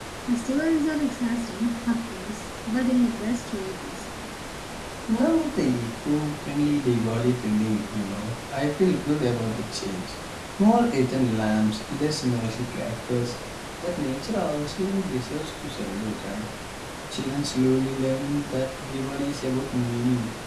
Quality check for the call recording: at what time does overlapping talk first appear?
none

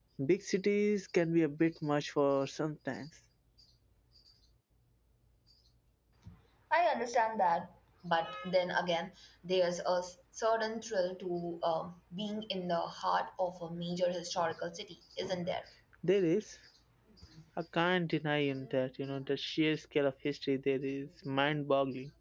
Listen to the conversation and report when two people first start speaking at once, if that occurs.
none

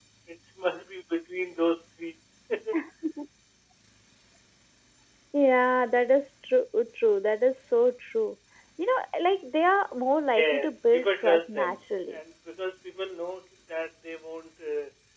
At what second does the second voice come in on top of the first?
10.4 s

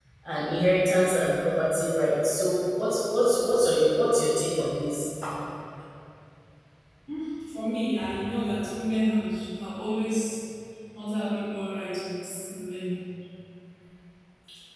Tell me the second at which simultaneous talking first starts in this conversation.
none

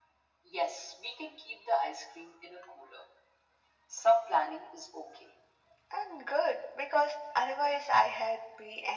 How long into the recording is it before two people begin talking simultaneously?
none

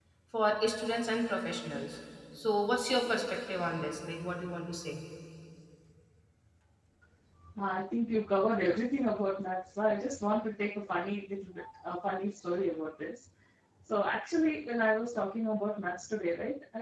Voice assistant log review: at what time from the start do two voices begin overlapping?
none

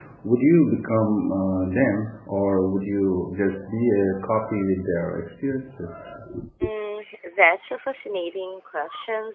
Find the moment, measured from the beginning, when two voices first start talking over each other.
none

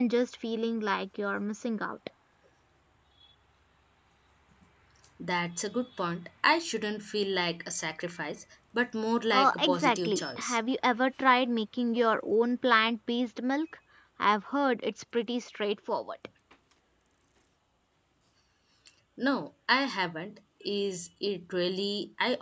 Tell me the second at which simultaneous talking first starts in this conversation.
9.3 s

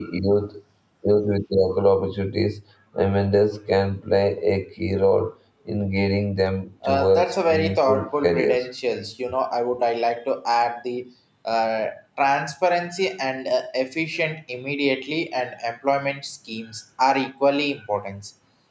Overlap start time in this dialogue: 6.8 s

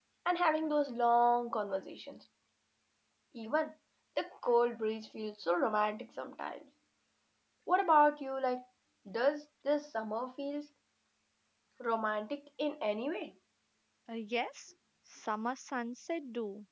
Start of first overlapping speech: none

